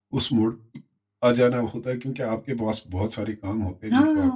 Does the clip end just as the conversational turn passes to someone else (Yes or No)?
Yes